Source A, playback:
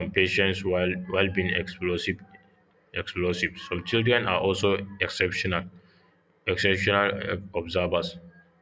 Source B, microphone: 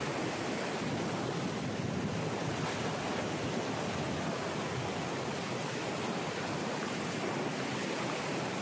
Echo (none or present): none